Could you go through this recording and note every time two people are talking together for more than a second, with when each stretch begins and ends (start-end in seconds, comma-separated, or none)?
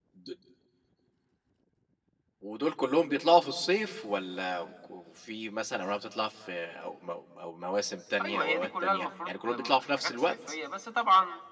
8.2-10.3